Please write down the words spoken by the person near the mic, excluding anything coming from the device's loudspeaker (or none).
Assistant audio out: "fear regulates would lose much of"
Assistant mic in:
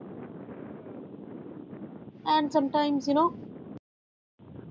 And sometimes, you know,